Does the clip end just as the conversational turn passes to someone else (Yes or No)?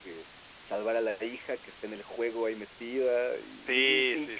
Yes